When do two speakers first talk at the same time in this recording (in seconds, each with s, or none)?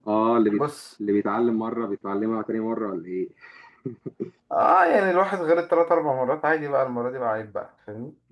none